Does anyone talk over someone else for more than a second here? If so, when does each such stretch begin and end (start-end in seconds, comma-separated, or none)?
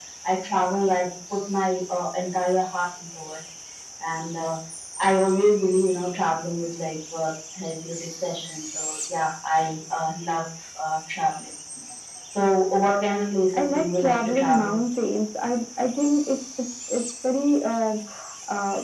13.5-14.8